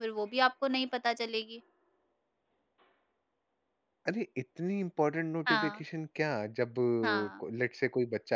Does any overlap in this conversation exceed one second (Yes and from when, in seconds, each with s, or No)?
No